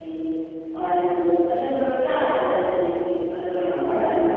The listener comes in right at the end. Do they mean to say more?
Yes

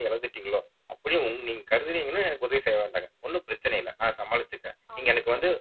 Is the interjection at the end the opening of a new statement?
No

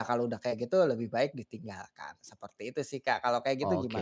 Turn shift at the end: Yes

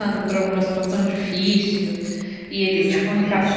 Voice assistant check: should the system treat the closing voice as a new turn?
No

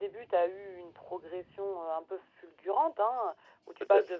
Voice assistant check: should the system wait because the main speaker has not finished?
Yes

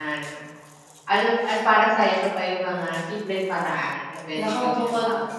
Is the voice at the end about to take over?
Yes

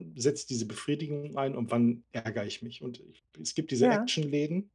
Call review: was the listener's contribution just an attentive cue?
Yes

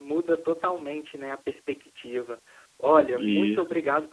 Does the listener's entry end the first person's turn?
No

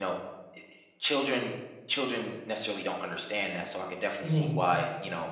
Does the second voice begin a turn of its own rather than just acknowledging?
No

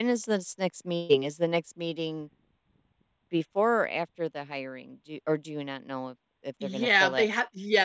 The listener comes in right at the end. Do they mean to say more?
Yes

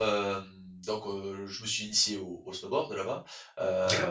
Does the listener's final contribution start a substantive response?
Yes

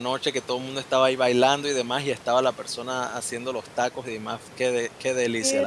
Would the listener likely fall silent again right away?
No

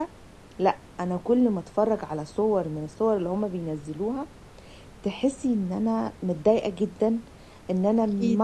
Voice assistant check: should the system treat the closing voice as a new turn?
No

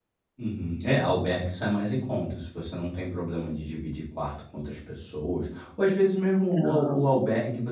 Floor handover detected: No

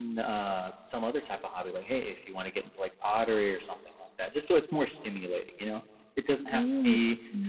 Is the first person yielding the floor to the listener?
No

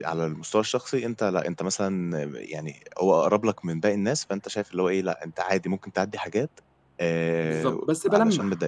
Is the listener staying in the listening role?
No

